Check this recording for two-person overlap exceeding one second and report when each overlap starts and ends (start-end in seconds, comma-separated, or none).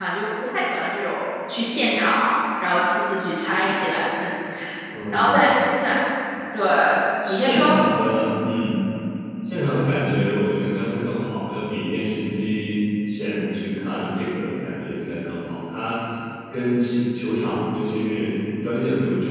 none